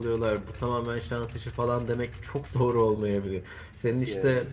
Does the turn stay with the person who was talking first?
Yes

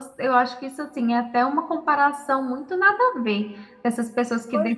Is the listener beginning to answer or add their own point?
No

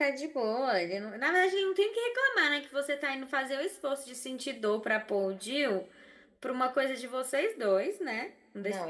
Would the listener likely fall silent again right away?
No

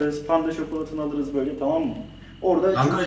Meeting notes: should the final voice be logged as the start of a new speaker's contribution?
Yes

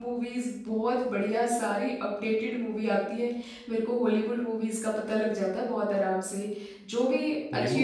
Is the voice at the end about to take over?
Yes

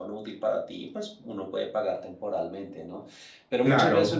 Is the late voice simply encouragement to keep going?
Yes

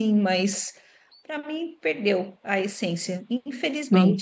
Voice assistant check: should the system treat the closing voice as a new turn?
Yes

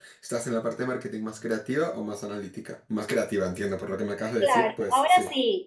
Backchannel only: No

